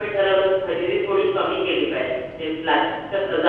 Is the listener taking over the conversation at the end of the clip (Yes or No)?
No